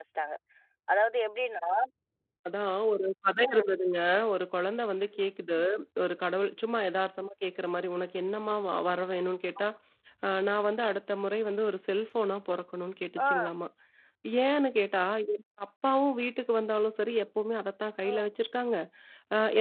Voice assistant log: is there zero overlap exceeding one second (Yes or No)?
Yes